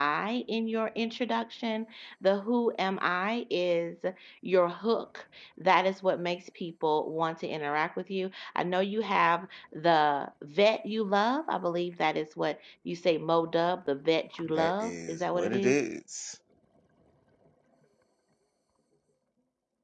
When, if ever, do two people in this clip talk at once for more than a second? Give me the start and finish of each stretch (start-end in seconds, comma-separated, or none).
14.4-15.8